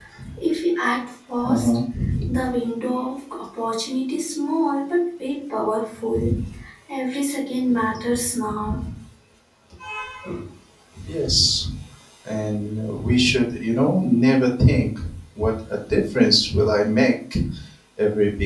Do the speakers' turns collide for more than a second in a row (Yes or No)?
No